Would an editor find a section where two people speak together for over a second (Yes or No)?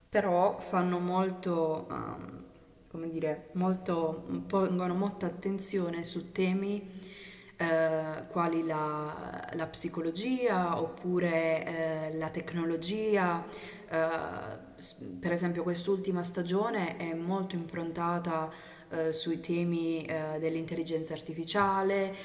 No